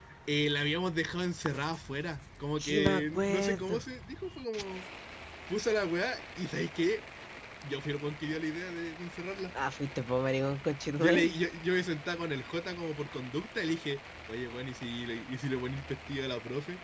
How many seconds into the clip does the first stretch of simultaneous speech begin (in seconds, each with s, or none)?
2.6 s